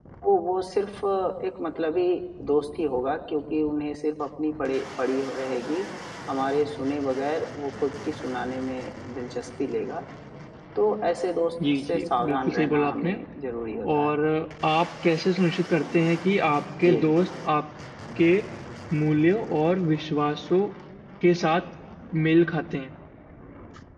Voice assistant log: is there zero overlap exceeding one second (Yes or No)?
No